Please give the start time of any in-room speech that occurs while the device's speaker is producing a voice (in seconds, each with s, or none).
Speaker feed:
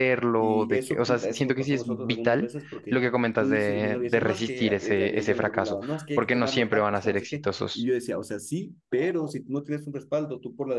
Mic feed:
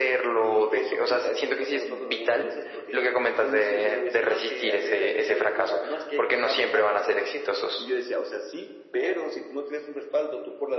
none